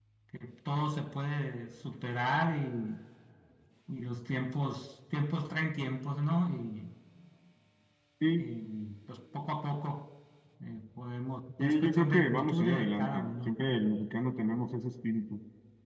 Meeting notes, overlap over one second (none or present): present